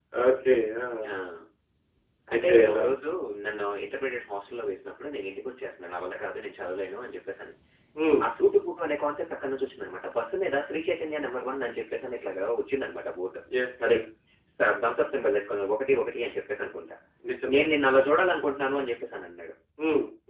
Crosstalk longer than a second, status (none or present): none